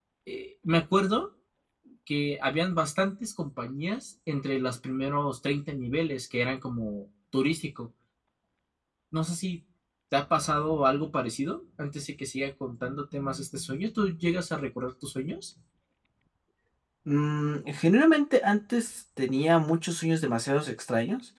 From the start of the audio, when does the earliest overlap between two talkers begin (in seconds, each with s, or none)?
none